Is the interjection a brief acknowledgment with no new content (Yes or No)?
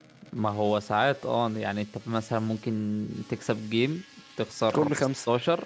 Yes